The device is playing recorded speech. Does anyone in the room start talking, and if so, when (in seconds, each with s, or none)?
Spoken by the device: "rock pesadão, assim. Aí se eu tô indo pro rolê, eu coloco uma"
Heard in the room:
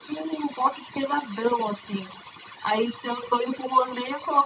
none